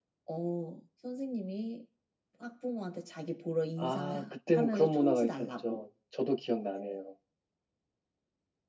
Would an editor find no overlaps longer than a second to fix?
No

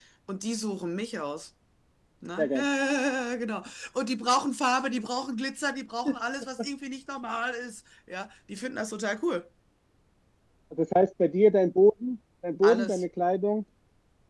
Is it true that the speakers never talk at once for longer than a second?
Yes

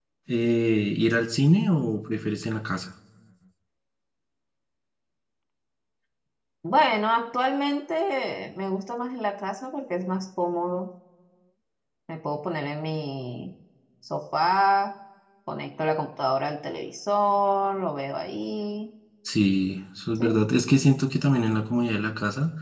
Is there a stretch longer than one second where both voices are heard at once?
No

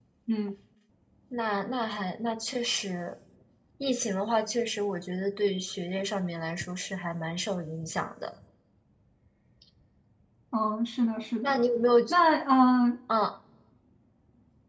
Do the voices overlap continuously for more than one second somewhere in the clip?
No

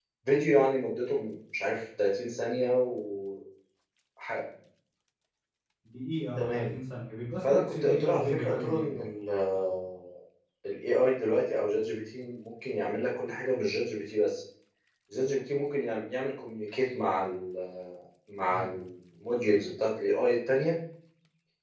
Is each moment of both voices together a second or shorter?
No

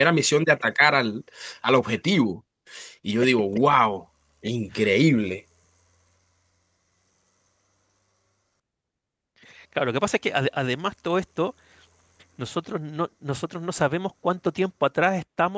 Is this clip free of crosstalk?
Yes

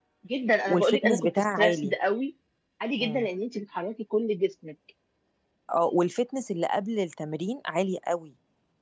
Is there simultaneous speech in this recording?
Yes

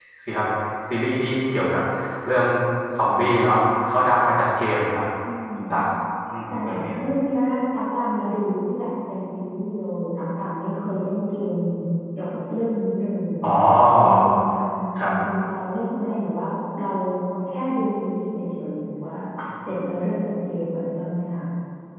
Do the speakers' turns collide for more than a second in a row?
No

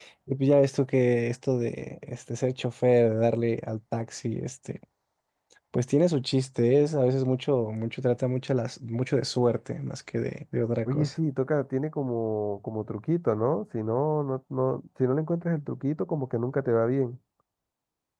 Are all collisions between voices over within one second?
Yes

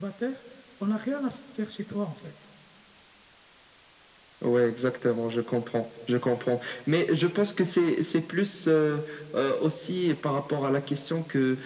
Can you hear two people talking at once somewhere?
No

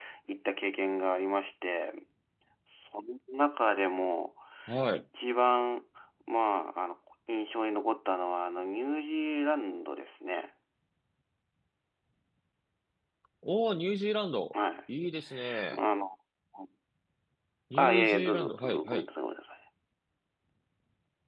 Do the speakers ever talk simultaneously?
Yes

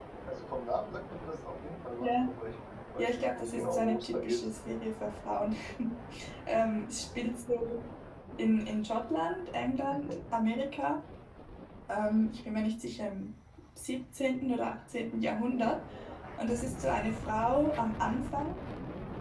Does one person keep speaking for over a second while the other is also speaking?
Yes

